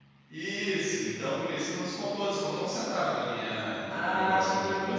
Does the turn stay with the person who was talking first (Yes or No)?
No